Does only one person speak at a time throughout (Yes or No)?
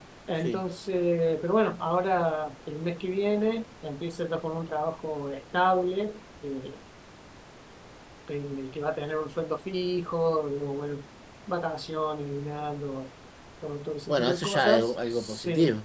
No